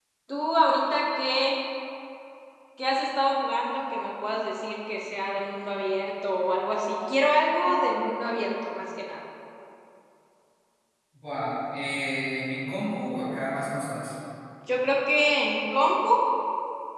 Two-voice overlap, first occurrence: none

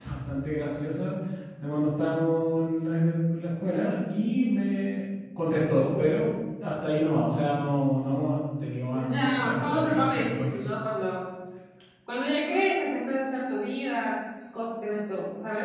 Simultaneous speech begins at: 8.9 s

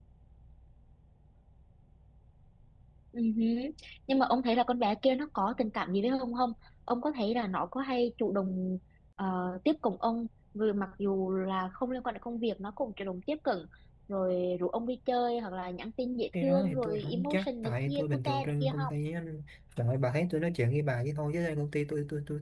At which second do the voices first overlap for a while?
16.3 s

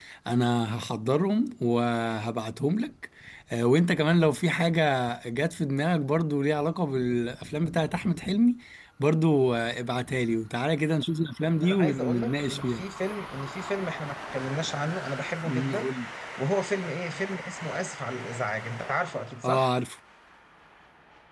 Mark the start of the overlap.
11.6 s

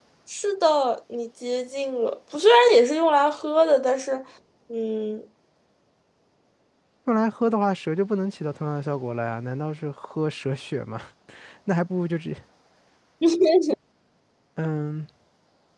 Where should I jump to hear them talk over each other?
none

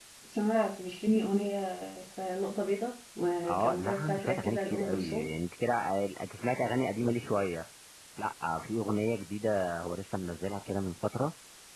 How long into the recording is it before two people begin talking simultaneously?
3.5 s

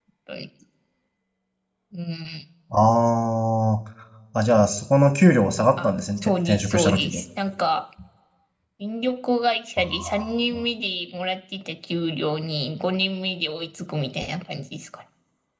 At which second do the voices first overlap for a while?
5.8 s

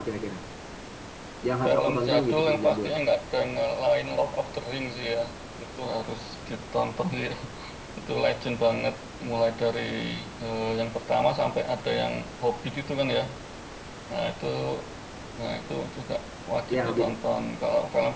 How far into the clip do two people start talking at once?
1.6 s

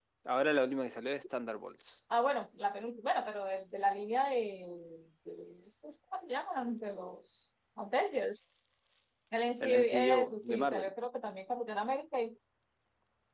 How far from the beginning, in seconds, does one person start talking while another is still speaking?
9.6 s

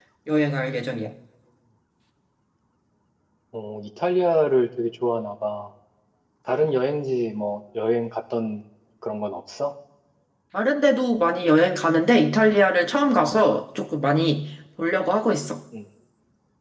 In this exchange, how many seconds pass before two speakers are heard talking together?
none

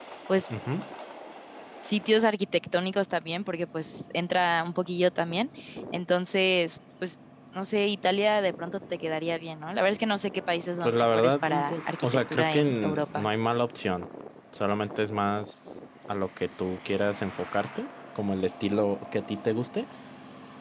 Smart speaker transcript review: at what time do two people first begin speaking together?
10.8 s

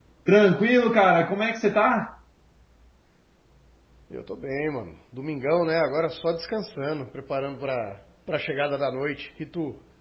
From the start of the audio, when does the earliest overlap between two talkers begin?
none

